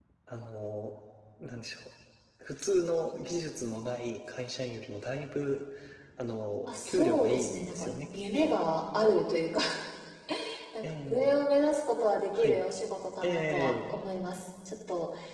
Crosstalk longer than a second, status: present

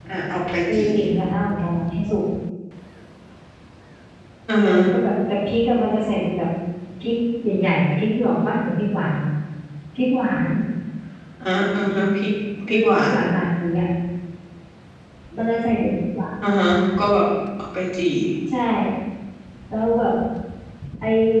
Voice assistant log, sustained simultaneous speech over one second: none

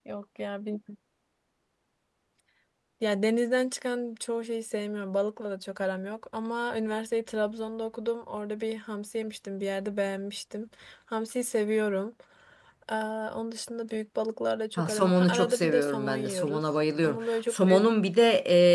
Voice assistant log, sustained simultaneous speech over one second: present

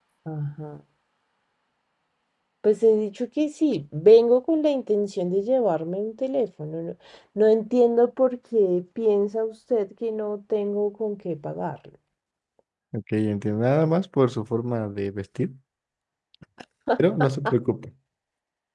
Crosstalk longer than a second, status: none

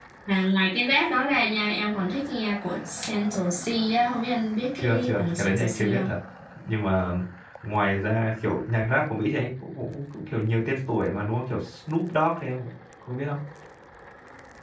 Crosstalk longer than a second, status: present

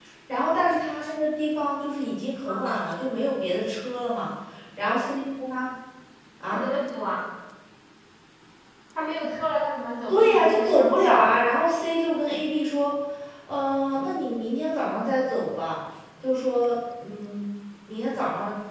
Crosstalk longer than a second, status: present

